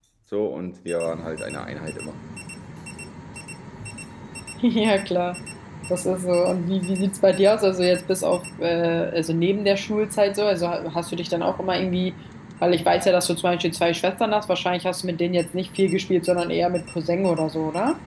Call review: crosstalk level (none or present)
none